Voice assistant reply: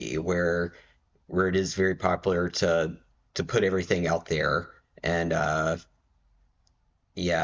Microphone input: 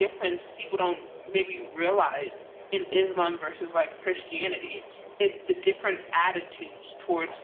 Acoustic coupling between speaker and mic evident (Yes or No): No